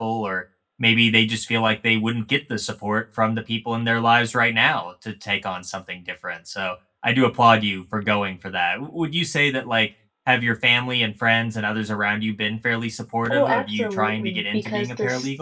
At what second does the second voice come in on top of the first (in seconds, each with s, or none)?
13.3 s